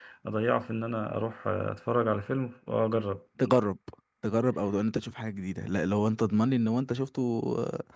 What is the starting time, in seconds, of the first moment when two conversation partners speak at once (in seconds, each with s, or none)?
none